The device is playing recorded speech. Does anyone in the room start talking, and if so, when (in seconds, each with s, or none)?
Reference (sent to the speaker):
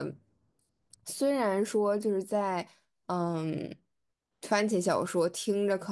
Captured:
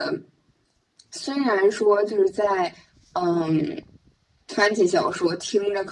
none